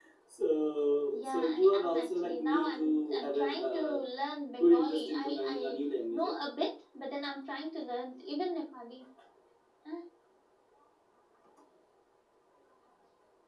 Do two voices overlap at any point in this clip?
Yes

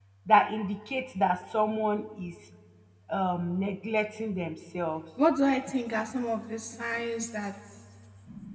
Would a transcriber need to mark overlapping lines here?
No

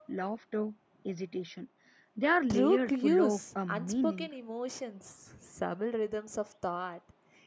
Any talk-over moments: Yes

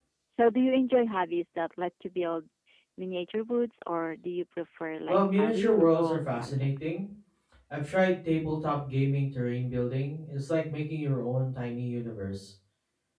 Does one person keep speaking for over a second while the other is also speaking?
Yes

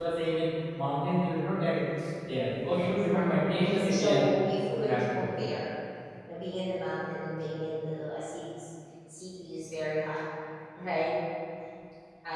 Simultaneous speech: Yes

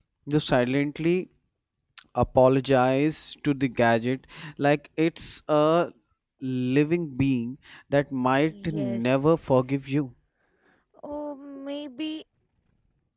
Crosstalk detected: Yes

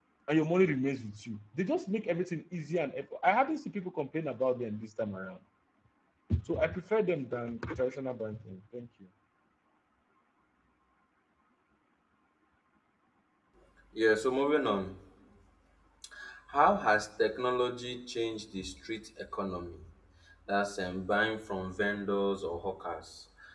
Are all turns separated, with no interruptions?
Yes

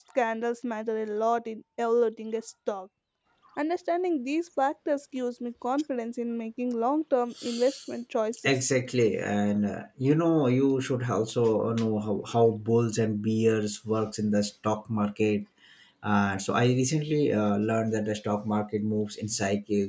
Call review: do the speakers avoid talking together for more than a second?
Yes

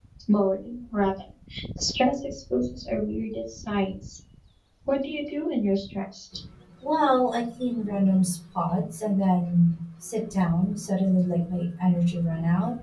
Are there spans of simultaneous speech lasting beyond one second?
No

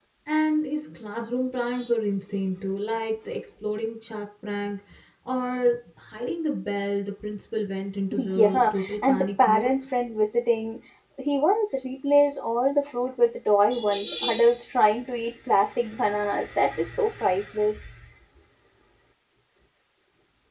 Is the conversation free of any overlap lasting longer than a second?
No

